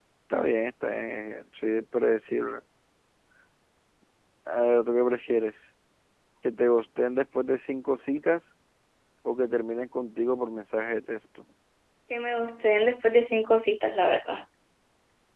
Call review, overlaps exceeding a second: none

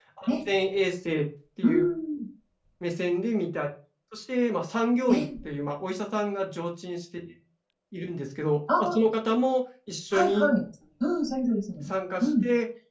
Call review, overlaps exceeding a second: none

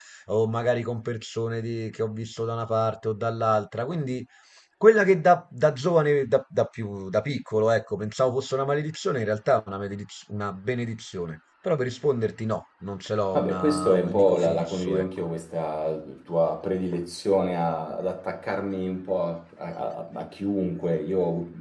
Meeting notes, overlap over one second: present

